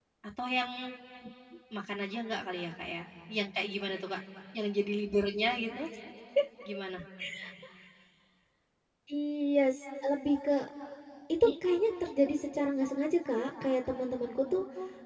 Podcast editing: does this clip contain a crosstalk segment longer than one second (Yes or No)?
No